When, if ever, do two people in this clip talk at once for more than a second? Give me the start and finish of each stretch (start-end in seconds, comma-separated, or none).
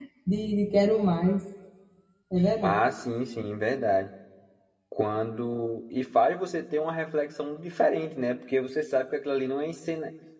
none